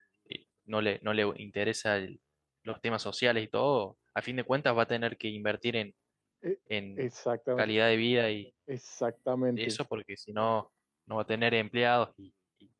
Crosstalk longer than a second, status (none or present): none